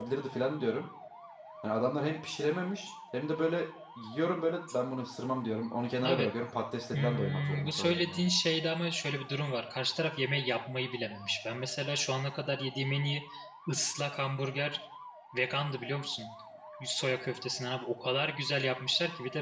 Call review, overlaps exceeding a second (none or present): present